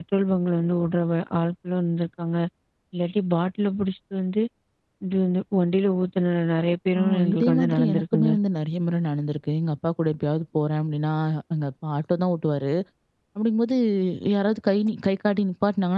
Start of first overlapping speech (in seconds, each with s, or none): 7.0 s